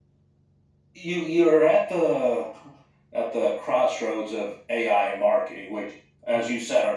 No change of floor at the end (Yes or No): Yes